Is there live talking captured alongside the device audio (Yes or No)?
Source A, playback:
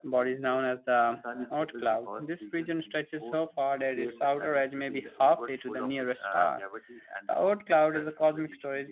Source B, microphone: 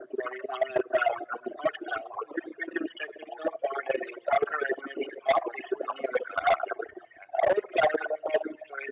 No